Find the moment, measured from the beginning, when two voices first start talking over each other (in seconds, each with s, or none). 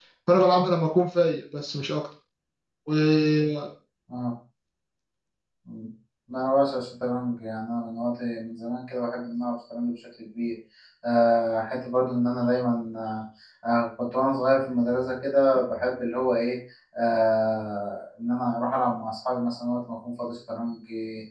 none